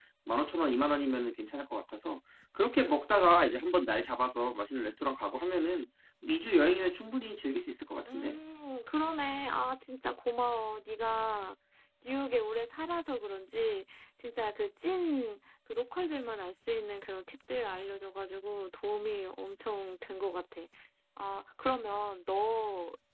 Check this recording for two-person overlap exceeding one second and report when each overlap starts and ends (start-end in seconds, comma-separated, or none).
none